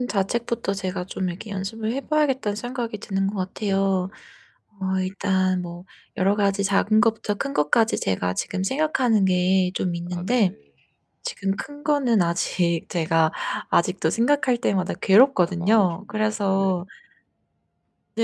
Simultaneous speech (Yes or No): Yes